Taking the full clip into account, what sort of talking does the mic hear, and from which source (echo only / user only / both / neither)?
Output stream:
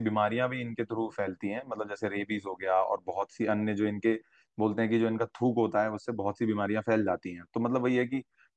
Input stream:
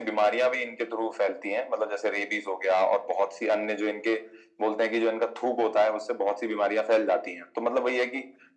echo only